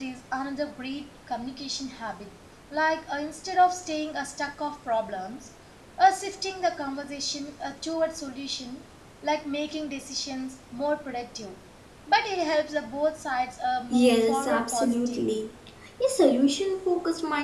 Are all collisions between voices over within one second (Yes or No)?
No